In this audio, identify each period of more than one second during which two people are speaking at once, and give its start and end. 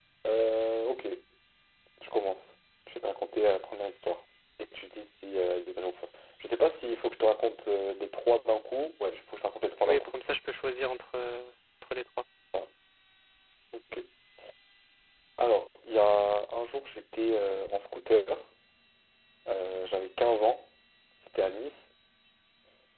none

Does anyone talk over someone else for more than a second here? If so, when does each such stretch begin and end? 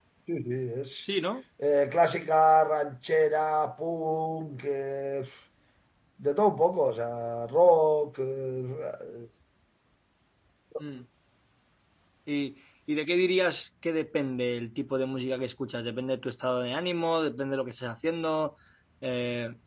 none

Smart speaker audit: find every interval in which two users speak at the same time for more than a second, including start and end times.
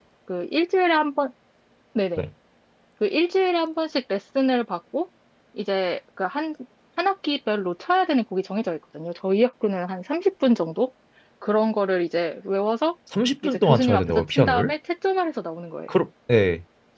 13.4-14.7

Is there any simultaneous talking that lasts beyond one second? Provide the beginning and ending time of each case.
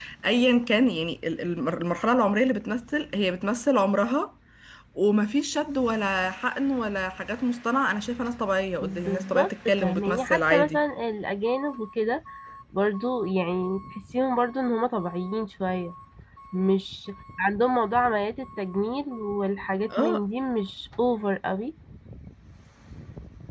8.8-10.8

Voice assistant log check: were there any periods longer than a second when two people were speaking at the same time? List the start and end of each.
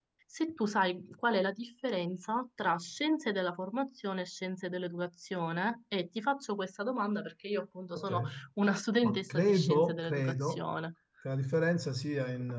9.0-10.7

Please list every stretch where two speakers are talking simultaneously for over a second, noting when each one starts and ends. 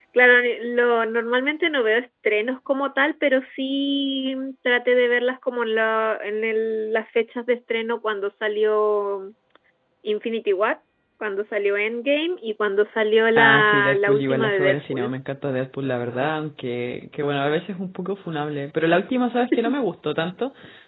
13.3-15.1

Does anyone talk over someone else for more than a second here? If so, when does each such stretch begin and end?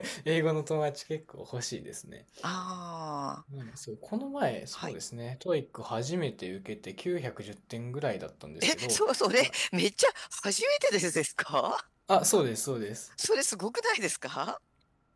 none

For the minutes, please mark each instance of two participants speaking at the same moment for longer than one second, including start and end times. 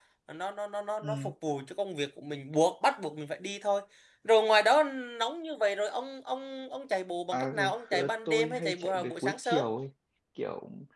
7.3-9.7

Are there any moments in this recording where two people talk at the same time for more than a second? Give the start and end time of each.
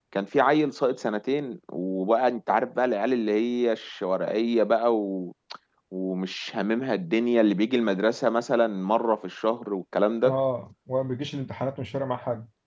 none

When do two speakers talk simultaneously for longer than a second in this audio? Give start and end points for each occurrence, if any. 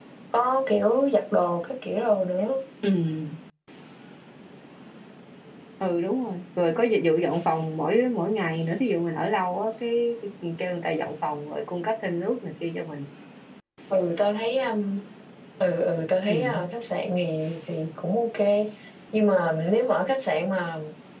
none

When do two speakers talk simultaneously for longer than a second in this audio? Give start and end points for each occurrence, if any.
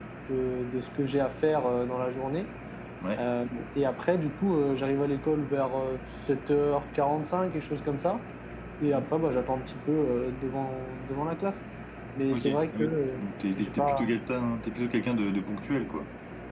12.3-14.2

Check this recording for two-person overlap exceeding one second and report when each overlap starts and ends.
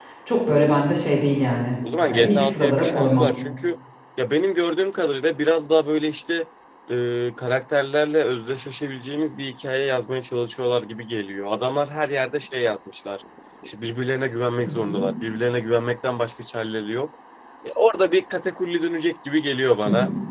2.0-3.2

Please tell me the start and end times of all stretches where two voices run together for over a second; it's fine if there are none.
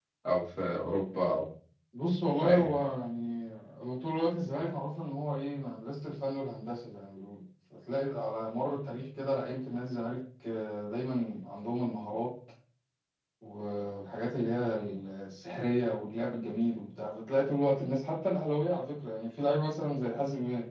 none

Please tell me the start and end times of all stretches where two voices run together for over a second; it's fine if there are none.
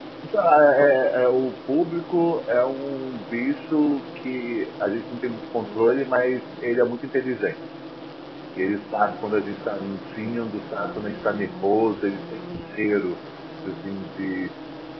none

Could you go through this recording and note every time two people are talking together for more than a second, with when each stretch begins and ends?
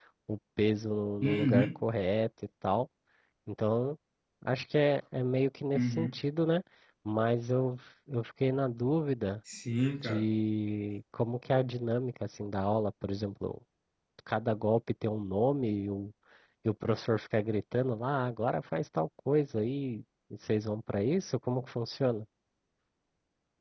none

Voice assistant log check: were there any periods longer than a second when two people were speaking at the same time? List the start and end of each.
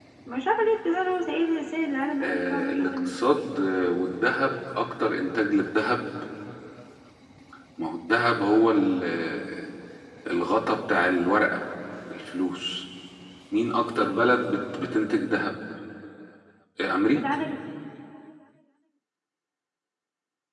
2.2-3.5

